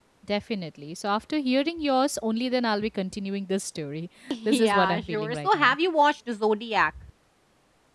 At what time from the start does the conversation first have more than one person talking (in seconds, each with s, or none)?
4.3 s